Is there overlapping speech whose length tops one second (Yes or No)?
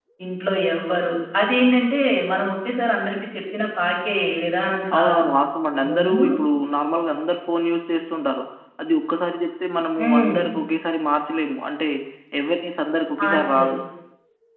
No